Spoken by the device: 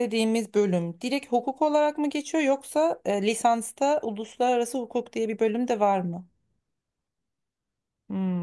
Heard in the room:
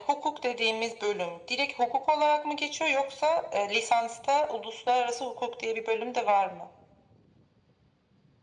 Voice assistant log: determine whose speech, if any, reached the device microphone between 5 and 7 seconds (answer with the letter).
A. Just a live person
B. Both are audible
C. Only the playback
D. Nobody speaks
C